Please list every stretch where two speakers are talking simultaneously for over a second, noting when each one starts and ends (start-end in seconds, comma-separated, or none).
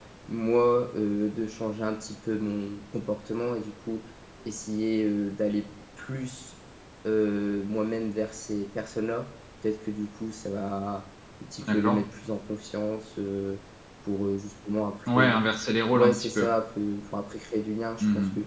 none